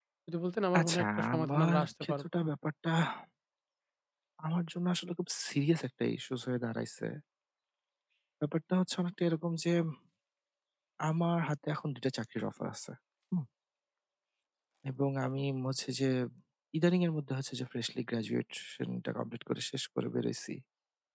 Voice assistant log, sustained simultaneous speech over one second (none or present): present